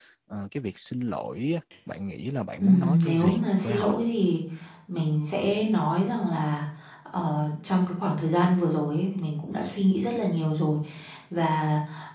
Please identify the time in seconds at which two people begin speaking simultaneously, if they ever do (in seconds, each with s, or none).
2.6 s